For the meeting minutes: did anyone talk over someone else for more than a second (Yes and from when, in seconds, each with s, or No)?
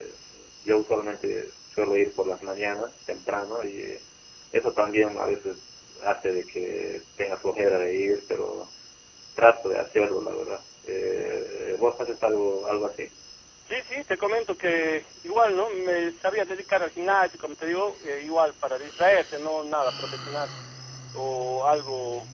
No